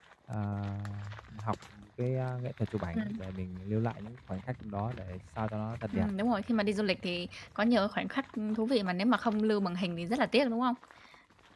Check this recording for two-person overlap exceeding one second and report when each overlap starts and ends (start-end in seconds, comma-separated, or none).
none